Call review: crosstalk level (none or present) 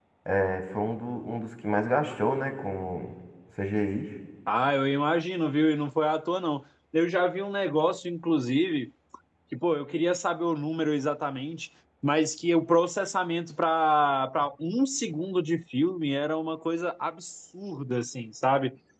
none